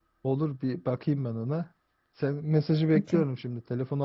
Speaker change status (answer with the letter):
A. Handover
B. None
B